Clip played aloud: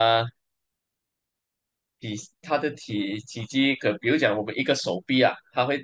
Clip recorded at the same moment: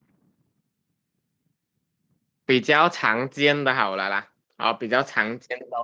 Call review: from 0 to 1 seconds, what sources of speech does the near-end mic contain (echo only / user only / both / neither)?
neither